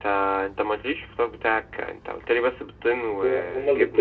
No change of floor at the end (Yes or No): No